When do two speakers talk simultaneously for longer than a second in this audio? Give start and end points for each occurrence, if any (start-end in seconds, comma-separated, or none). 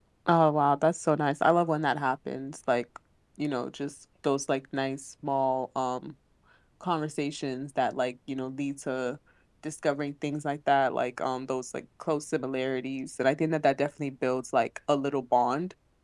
none